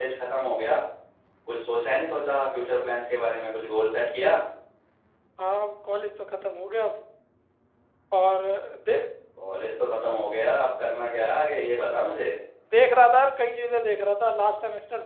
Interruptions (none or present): none